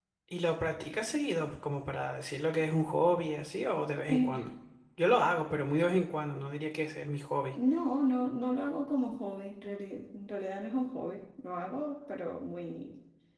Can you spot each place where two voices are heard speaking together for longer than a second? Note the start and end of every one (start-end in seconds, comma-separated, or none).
none